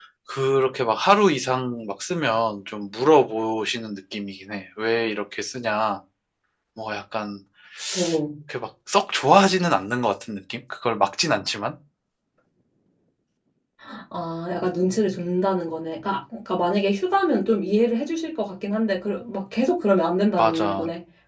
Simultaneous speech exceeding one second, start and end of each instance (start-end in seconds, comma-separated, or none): none